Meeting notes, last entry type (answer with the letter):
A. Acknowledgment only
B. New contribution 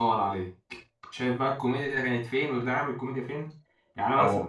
A